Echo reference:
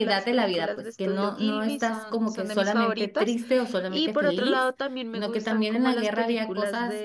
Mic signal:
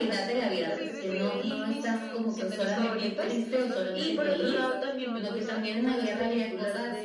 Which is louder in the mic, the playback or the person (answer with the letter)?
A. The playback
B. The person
A